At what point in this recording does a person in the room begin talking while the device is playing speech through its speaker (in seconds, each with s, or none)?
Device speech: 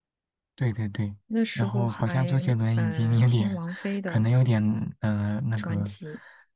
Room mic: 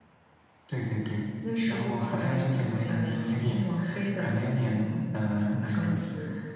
none